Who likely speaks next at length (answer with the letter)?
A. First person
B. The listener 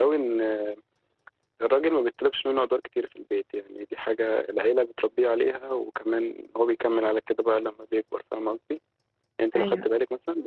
A